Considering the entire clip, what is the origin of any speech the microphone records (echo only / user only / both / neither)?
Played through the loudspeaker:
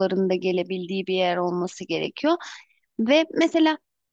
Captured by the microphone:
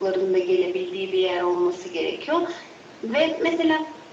echo only